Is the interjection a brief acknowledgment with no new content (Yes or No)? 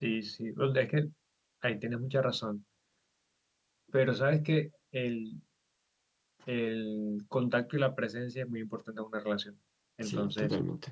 Yes